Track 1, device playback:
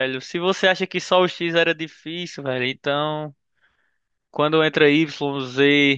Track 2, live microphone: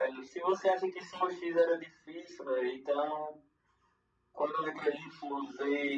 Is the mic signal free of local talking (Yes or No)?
Yes